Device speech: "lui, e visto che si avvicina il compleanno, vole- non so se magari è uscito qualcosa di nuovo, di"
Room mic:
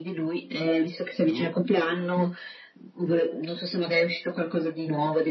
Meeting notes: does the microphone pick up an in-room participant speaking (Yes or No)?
Yes